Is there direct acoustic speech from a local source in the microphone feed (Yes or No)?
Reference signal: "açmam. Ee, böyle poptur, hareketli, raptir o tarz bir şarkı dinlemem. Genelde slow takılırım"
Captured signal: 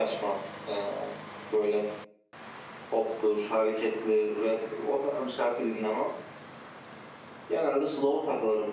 No